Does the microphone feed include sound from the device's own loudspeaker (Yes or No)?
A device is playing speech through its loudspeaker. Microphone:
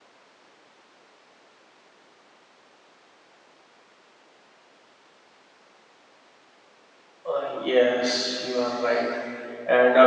No